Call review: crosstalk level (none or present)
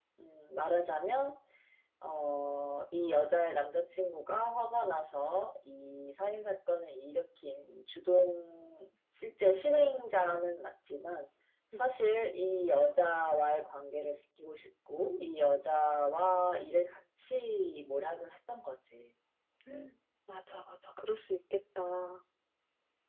none